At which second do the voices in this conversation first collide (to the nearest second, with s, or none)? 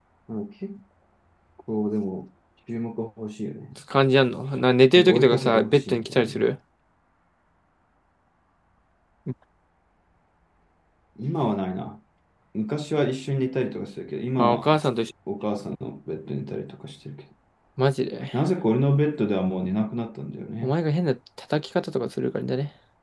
5 s